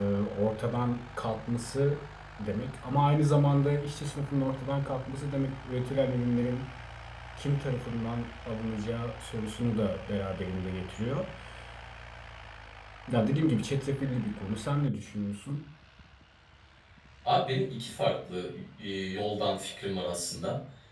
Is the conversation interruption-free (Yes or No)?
Yes